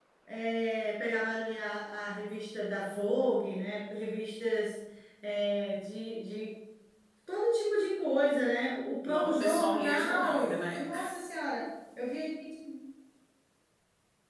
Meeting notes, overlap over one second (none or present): present